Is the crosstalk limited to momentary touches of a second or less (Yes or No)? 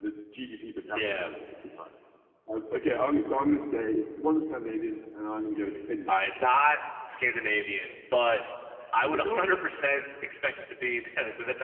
Yes